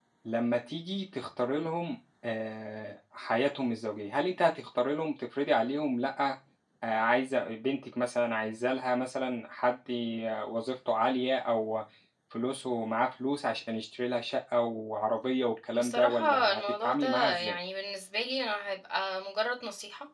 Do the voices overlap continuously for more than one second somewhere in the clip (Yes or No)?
Yes